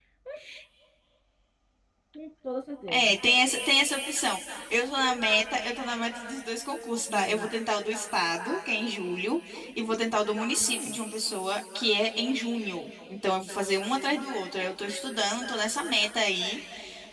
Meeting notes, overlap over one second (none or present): none